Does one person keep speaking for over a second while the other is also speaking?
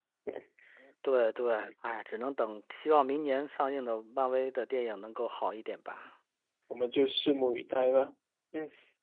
No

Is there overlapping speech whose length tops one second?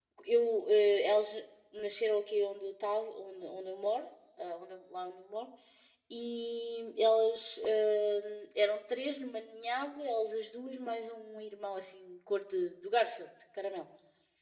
No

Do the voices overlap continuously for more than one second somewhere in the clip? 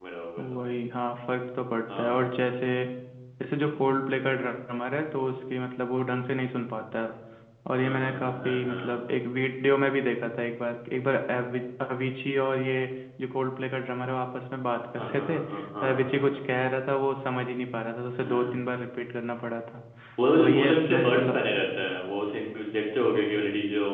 Yes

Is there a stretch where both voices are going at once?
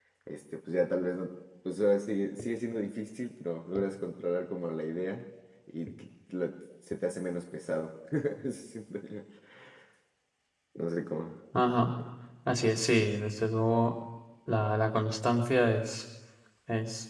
No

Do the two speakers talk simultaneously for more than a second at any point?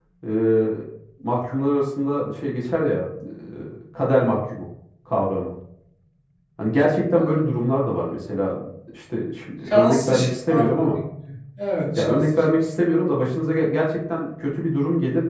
Yes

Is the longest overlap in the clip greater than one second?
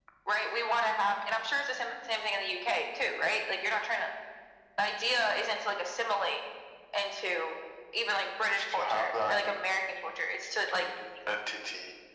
Yes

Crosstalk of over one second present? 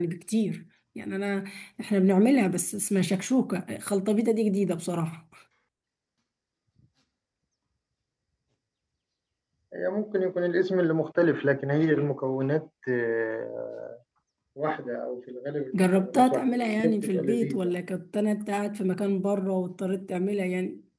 Yes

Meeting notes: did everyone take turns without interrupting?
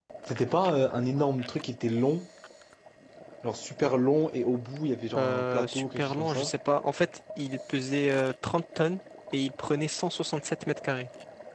No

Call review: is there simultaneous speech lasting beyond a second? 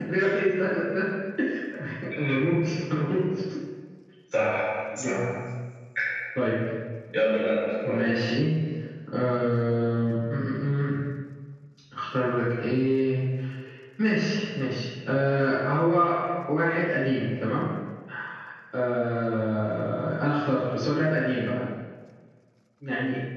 No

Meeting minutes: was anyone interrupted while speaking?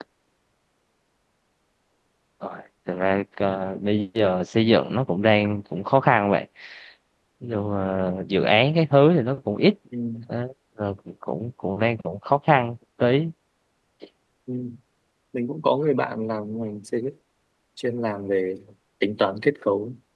No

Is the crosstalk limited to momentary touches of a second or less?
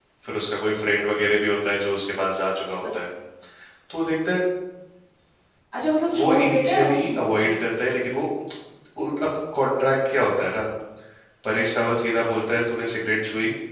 No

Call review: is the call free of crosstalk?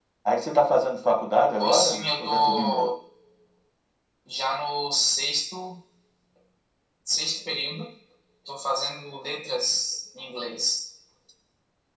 No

